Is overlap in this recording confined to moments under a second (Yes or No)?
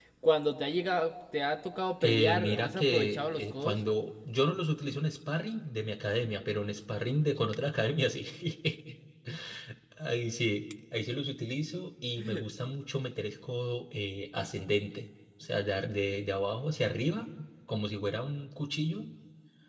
No